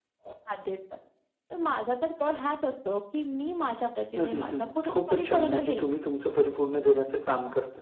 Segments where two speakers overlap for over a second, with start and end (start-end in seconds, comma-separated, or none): 4.2-6.0